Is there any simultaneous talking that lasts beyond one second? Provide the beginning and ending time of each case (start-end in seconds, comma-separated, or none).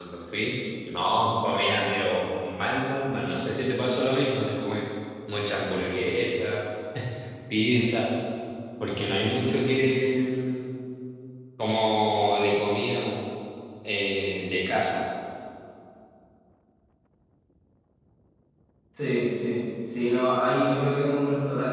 none